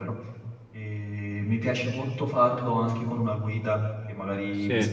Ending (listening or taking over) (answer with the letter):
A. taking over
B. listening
B